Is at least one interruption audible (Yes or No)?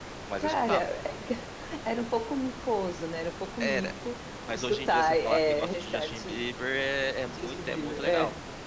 Yes